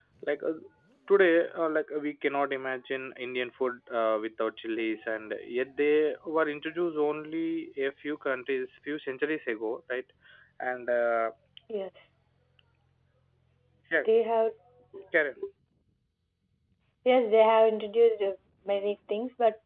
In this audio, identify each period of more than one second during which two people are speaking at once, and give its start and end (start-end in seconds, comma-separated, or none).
none